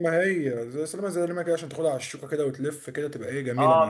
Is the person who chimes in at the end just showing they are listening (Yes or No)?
No